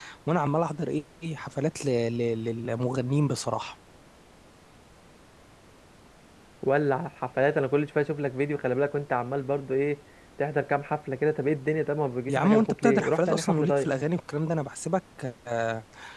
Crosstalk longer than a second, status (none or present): present